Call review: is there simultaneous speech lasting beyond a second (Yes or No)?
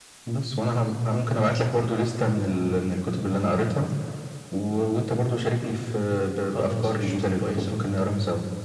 Yes